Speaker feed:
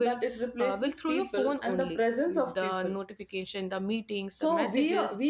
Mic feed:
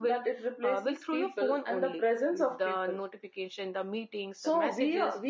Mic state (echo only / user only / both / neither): echo only